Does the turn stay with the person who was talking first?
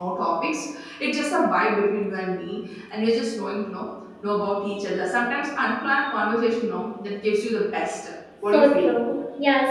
No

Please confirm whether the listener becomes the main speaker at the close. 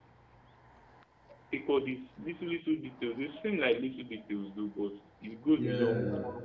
No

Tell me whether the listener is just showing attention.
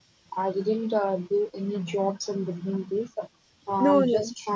Yes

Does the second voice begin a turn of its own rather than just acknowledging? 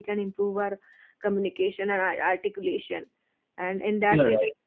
No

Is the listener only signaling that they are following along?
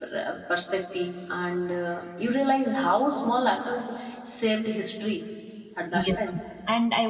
No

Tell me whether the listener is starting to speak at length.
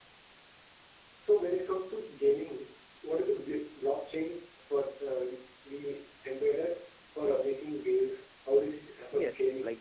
Yes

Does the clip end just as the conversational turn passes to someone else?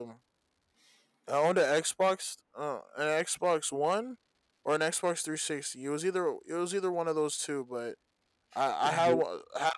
No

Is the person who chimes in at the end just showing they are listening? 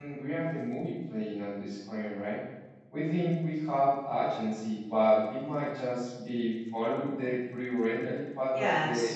No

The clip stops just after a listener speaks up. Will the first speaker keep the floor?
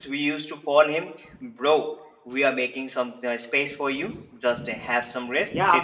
No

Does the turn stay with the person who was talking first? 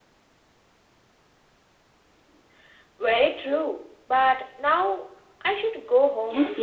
No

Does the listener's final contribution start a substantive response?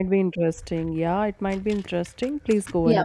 Yes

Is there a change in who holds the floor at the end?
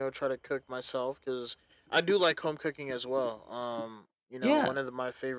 No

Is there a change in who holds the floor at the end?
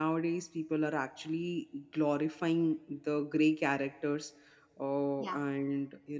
No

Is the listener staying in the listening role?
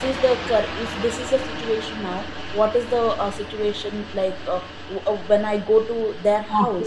Yes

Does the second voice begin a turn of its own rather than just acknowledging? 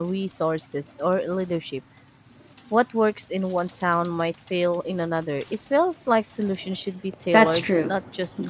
Yes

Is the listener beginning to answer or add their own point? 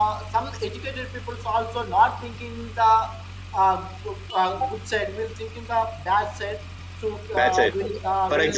Yes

